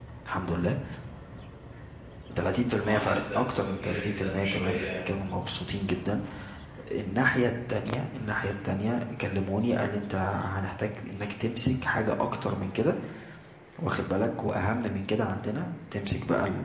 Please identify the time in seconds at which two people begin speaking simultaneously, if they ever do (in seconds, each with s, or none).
2.8 s